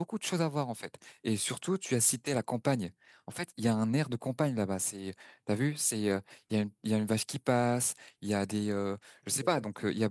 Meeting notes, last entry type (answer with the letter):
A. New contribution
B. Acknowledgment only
B